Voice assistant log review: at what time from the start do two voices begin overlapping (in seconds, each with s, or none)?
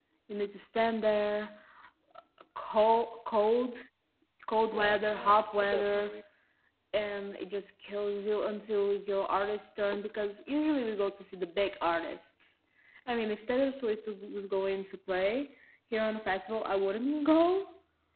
4.7 s